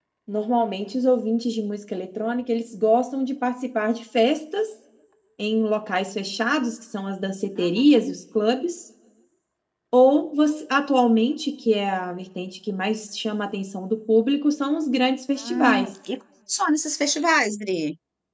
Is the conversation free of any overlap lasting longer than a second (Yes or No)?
Yes